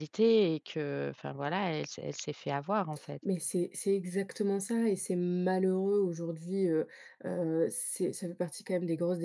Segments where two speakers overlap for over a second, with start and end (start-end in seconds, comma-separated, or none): none